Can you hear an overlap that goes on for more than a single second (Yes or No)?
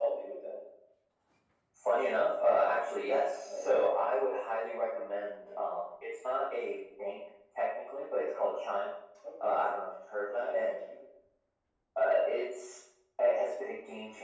No